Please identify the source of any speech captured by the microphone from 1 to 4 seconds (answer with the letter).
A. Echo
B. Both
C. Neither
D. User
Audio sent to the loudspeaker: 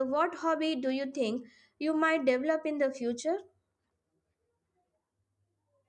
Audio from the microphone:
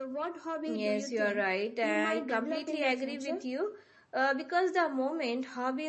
B